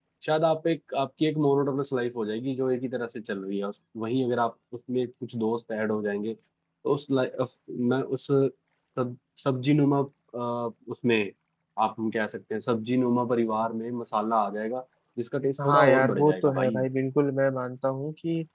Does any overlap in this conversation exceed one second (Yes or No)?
Yes